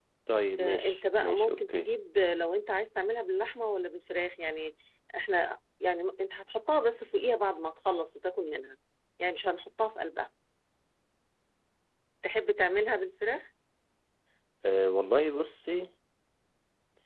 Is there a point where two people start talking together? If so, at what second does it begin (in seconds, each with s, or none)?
0.6 s